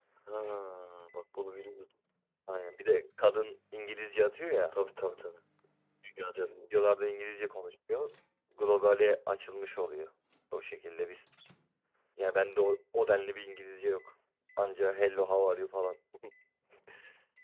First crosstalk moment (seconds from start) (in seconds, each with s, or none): none